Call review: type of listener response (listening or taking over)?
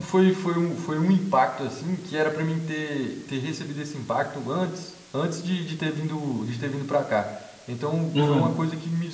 listening